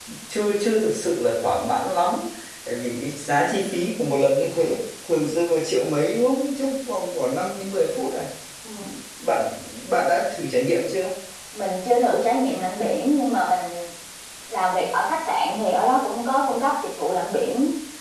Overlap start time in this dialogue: none

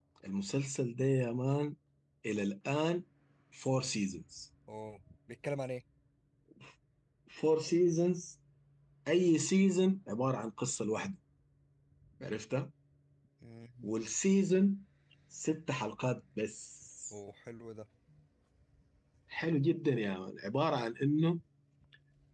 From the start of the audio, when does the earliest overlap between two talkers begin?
none

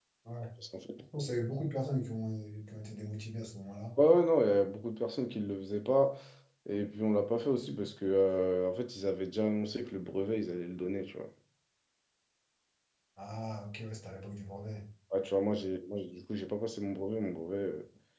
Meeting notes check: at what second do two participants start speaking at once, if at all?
none

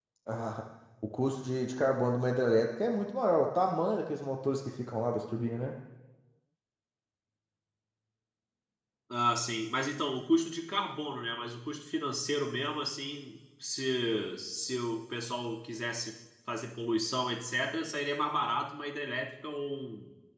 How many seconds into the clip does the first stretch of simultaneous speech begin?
none

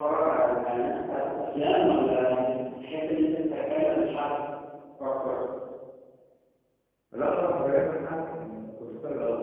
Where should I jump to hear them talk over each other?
none

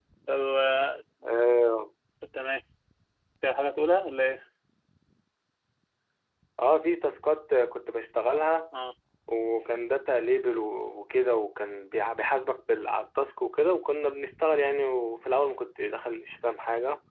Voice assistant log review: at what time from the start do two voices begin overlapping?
none

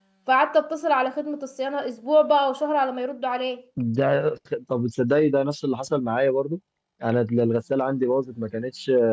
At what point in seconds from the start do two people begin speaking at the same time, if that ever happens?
none

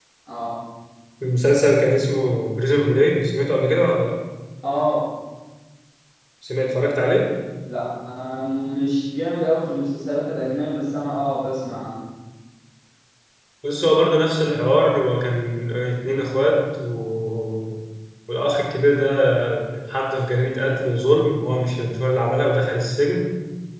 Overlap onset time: none

